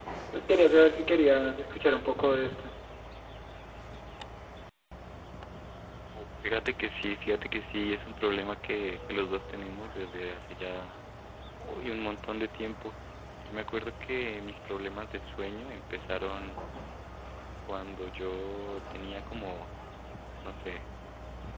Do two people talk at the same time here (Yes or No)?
No